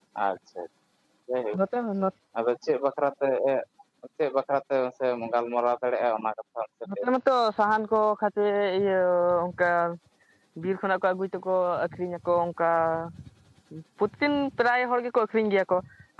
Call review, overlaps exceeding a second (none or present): none